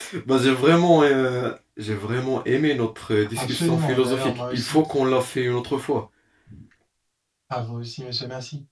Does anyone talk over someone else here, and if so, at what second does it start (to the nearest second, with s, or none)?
3 s